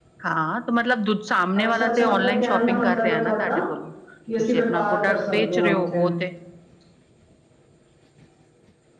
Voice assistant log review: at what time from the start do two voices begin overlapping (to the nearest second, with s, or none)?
2 s